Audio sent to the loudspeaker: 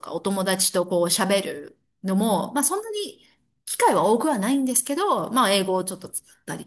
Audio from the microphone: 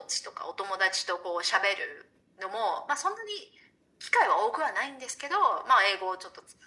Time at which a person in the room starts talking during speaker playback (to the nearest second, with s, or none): none